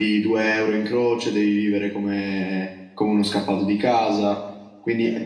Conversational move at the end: listening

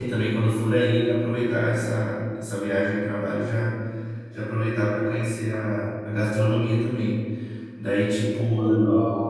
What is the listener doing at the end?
listening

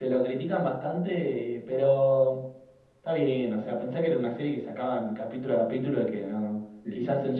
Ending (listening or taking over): listening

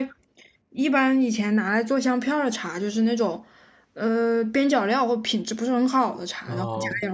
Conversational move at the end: listening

